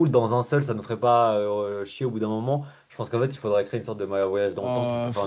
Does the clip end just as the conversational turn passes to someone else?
Yes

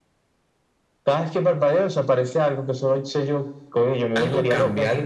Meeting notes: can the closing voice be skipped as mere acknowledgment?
No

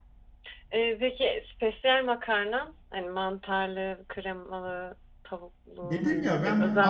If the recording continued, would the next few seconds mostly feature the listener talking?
Yes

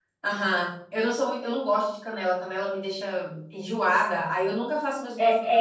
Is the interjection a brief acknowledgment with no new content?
No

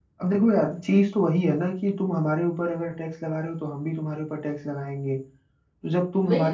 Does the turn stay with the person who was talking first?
Yes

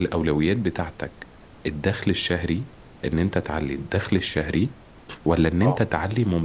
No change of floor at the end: Yes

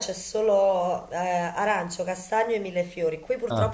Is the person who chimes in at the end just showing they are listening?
Yes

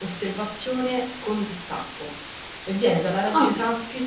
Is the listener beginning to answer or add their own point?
No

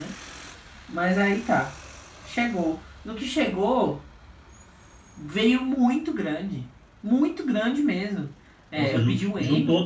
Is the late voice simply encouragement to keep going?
No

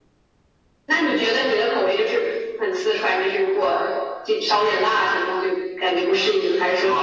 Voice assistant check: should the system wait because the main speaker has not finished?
No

